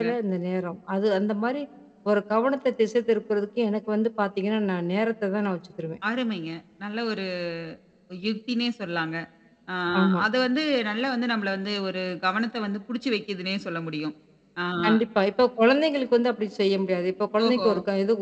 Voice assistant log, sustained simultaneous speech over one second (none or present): none